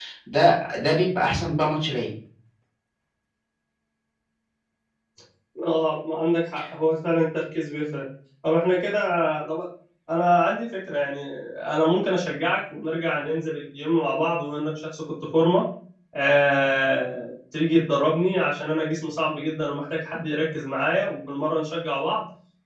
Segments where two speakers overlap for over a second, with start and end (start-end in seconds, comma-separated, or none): none